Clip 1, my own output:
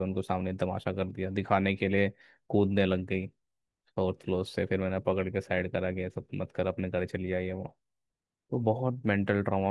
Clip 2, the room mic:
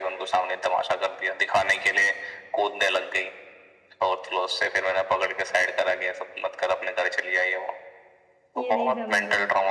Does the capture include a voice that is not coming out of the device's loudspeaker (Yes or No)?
Yes